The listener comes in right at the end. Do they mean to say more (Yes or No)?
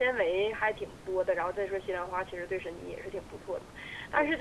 No